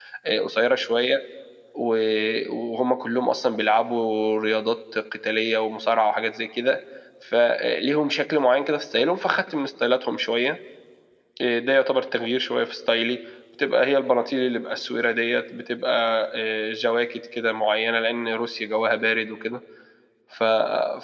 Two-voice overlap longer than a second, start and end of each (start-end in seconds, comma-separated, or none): none